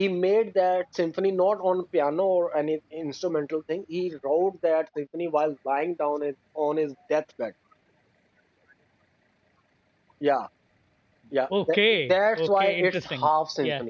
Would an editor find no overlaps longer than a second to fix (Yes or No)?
No